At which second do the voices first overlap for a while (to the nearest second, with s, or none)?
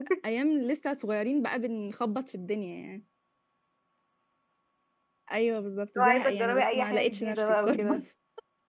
6 s